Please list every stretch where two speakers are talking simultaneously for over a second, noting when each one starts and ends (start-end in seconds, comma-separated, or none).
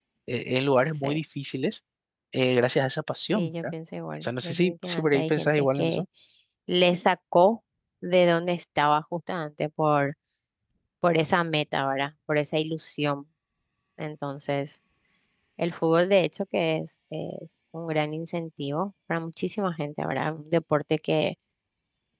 4.2-6.0